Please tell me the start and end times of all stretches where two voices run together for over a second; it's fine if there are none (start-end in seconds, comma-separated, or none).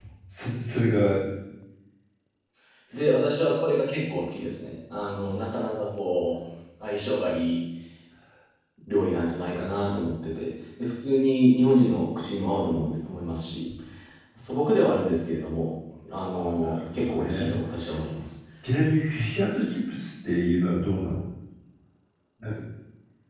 16.3-17.6